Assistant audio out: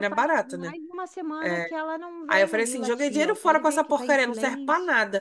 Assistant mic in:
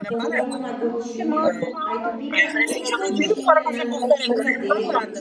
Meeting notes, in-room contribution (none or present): present